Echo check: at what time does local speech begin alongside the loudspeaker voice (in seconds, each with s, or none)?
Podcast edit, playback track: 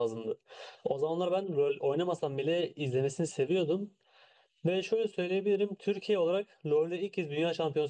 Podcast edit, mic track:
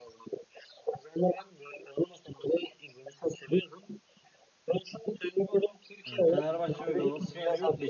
6.0 s